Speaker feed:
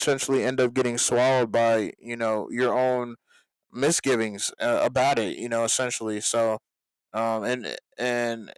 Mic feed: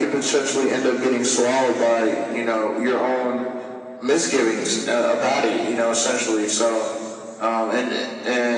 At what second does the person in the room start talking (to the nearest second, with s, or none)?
none